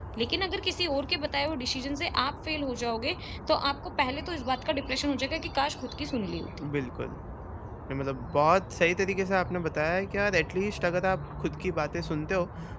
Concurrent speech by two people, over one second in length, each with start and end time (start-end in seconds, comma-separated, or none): none